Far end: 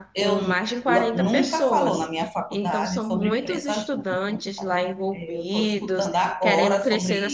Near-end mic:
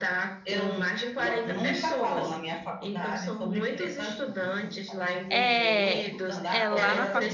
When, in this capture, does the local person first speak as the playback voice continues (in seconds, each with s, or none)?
5.3 s